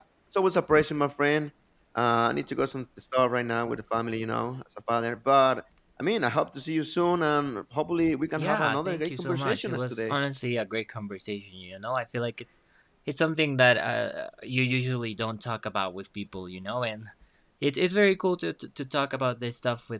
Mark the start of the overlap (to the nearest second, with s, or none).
8 s